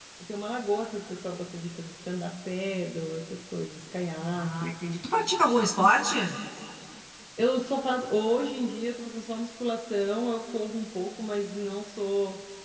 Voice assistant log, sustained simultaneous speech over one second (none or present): none